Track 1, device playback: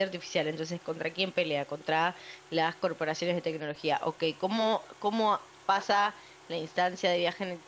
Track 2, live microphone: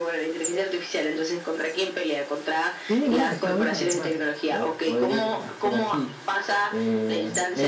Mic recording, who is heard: both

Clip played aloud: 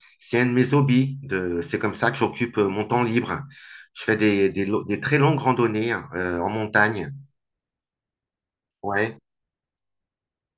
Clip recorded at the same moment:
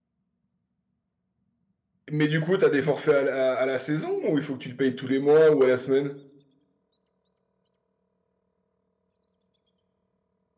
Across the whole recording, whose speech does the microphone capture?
user only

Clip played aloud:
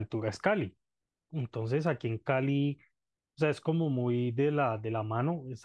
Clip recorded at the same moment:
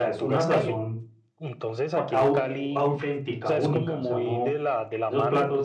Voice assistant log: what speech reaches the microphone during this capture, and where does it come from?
both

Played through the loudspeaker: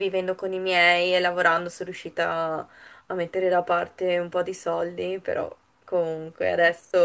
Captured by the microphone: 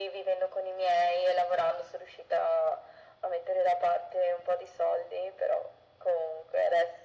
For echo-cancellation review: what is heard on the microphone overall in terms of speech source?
echo only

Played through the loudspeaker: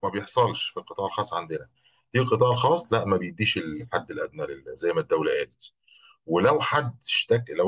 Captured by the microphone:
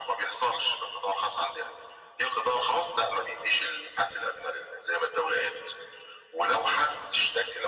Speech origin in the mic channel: echo only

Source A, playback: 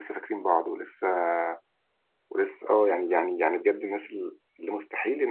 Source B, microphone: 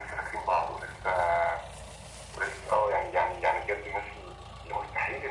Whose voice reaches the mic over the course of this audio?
echo only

